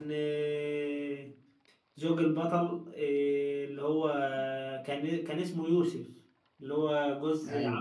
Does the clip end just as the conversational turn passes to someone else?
Yes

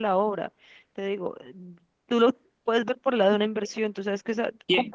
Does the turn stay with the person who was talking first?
No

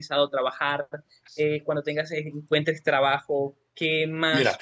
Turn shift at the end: No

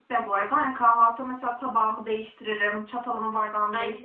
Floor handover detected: No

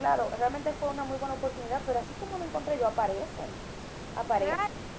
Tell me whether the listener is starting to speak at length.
Yes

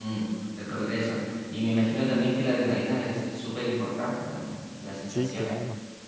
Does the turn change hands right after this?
Yes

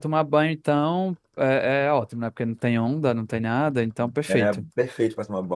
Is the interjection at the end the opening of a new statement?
Yes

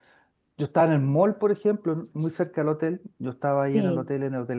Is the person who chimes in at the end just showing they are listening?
Yes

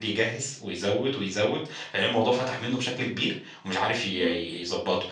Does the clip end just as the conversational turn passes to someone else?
No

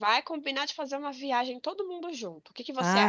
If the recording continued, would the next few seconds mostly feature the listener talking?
Yes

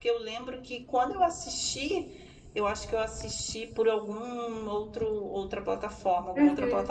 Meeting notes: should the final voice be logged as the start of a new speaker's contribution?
Yes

